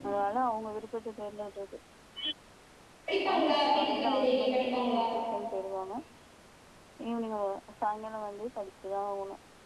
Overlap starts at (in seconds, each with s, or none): 3.3 s